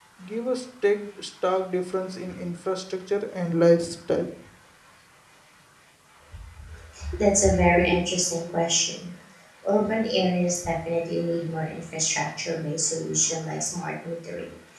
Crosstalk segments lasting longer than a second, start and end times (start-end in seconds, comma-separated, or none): none